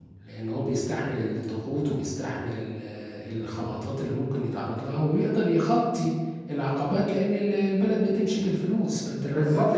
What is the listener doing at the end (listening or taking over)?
taking over